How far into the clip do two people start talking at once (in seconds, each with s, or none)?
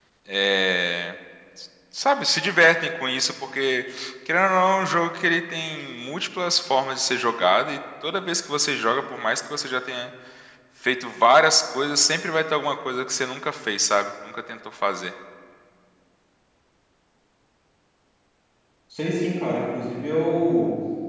none